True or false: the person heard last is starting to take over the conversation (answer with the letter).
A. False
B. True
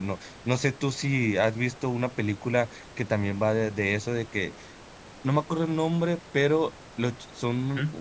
A